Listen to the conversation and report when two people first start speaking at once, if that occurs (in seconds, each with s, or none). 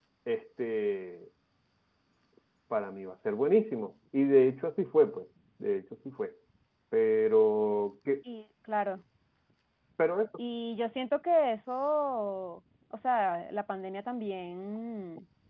none